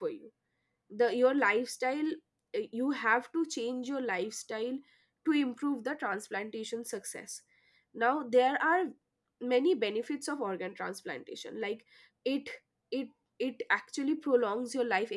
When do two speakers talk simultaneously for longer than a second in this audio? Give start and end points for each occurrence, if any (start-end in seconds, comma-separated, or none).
none